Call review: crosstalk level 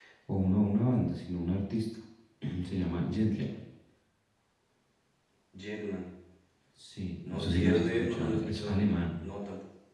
present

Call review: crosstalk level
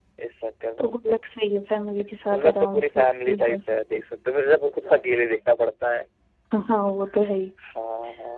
present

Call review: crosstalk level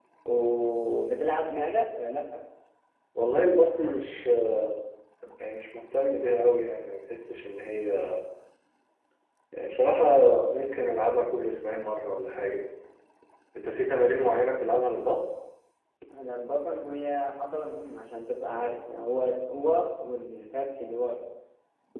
none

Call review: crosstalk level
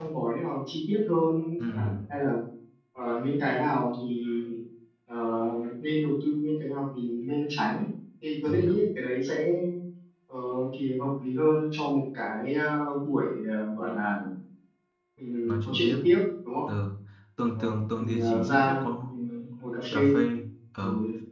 present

